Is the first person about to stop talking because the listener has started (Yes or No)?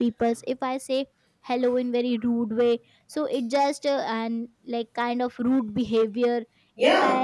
No